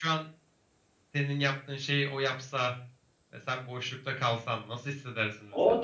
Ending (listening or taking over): taking over